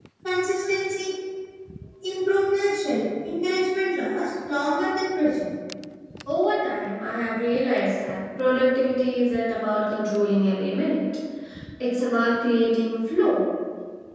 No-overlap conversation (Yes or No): Yes